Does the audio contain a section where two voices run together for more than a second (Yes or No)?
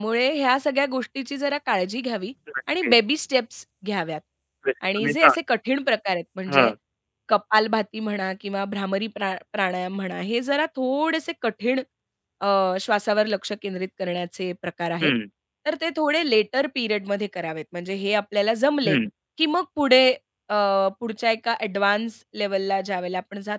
No